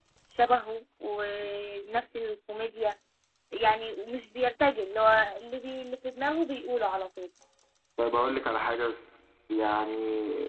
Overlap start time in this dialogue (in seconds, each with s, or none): none